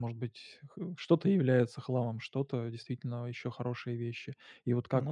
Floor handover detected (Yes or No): No